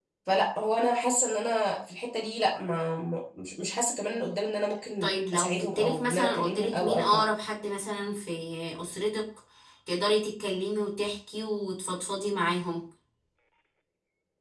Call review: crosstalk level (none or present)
present